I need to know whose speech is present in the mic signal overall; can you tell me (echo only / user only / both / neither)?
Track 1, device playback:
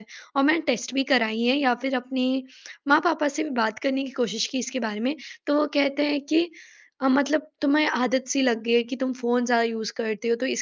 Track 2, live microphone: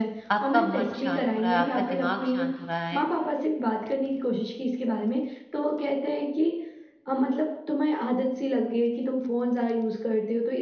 both